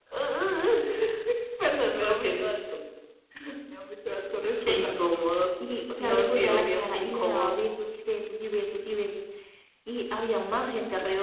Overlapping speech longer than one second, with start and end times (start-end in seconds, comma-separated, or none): 6.0-7.5